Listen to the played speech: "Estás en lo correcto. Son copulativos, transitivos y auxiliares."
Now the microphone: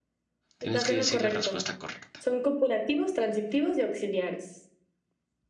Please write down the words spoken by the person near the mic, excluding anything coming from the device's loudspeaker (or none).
tienes que decir la respuesta correcta.